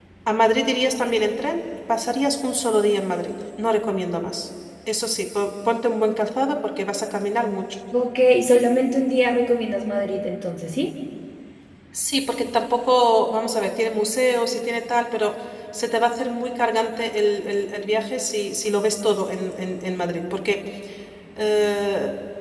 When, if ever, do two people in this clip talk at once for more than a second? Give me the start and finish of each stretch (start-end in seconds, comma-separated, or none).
none